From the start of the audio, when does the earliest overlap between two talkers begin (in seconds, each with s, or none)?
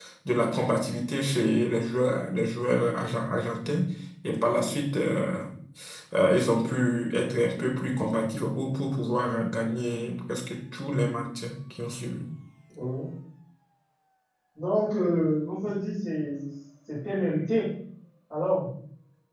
none